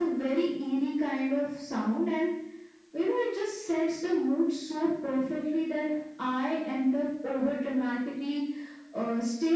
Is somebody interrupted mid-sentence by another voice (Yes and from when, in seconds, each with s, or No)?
No